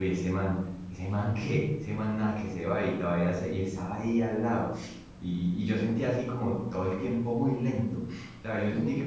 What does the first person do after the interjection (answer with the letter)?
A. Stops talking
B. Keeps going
B